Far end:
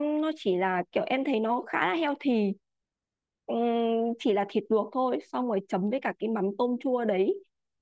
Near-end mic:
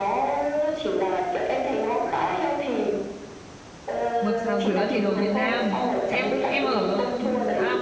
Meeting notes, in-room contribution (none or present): present